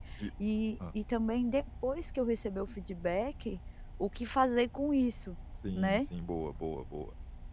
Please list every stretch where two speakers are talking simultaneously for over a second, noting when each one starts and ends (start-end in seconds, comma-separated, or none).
none